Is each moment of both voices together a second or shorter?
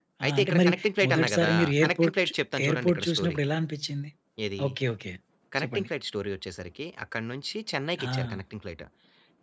No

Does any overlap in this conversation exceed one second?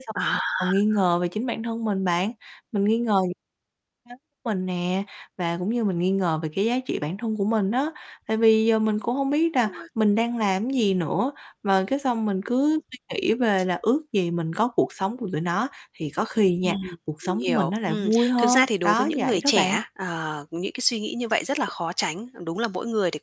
Yes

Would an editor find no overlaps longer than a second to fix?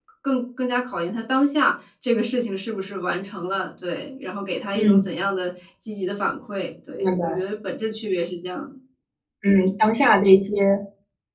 Yes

